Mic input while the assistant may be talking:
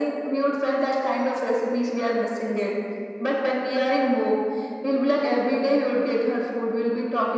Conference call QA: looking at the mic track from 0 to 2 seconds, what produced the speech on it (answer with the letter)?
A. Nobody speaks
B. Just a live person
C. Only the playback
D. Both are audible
C